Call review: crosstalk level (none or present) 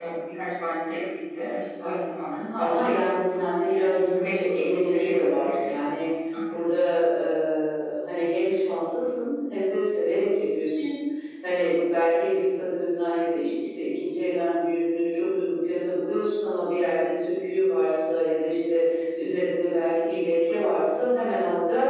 present